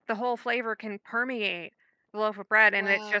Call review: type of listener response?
listening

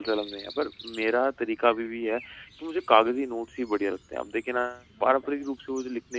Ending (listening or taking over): listening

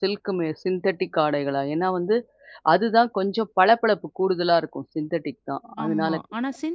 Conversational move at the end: taking over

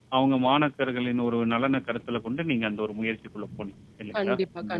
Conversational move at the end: taking over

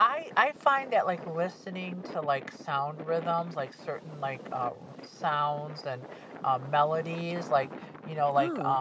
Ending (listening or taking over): listening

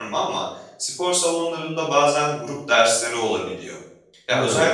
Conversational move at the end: listening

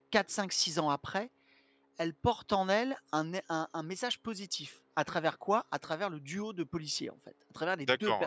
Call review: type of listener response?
taking over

